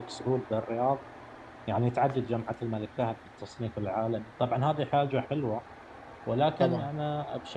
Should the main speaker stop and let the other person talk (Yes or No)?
No